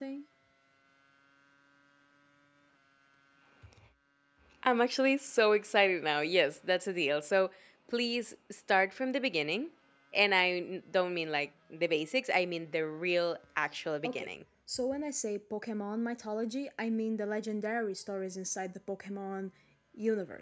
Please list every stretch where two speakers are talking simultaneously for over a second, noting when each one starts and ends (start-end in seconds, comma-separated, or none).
none